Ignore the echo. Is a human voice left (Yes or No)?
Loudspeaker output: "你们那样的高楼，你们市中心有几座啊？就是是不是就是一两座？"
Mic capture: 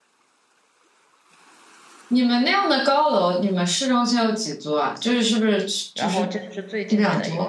Yes